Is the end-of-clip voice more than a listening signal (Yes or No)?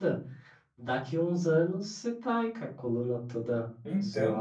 No